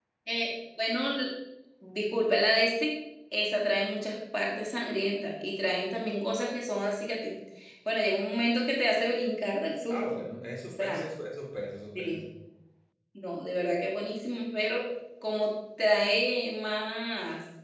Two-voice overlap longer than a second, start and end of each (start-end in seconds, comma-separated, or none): none